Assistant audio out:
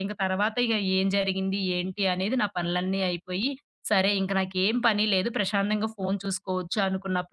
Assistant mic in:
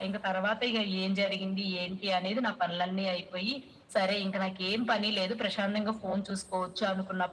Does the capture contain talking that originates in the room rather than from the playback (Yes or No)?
No